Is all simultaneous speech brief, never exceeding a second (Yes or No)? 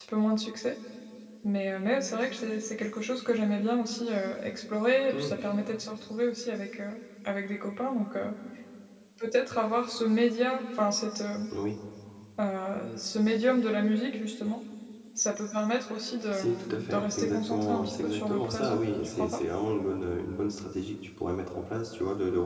No